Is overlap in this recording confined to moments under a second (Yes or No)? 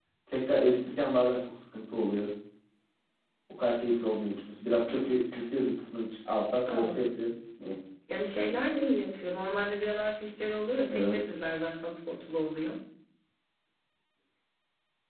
Yes